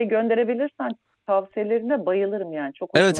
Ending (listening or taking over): taking over